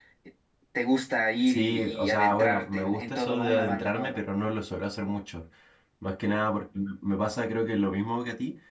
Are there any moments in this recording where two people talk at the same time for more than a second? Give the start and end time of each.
1.5-4.2

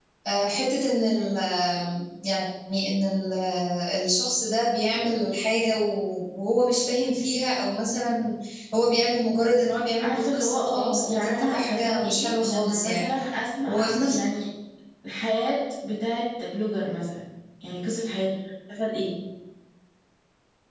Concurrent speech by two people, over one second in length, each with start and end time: 10.0-13.1

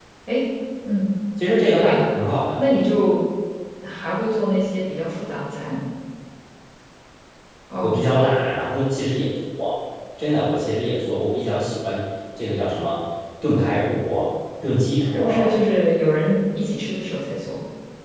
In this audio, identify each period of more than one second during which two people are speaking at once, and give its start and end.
none

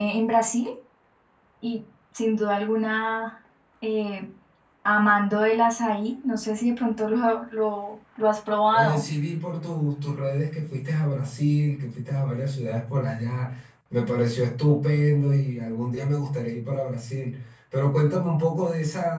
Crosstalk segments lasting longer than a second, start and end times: none

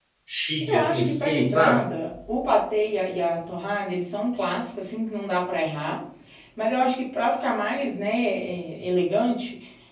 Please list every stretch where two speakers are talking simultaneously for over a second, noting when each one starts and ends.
0.6-1.9

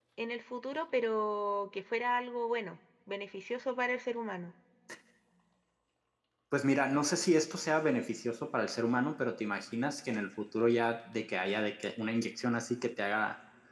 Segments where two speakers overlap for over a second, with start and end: none

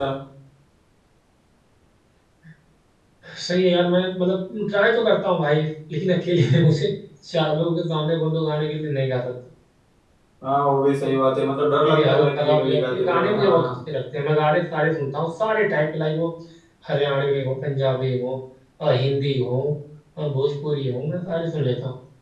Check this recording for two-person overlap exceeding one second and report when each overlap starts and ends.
11.7-13.7

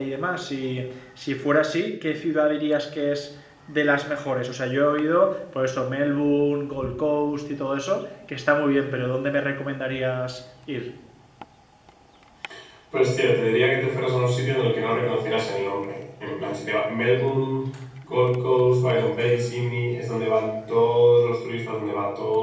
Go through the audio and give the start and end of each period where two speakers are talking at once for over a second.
none

